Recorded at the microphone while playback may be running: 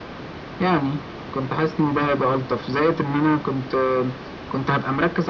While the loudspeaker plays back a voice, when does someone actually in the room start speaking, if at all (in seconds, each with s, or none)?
none